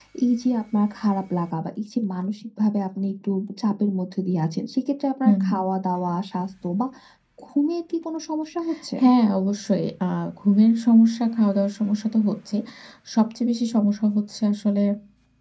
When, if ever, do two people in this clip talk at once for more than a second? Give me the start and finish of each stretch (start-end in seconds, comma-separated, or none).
none